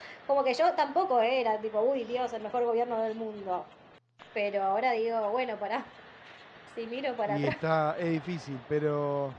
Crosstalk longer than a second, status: none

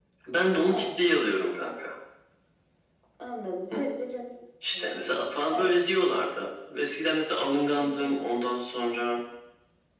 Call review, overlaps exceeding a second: none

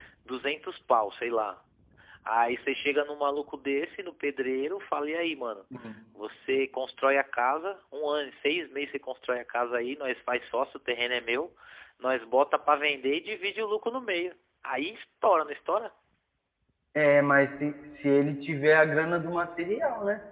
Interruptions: none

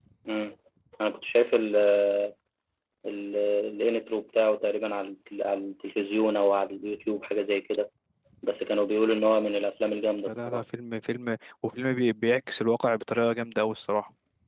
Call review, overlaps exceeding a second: none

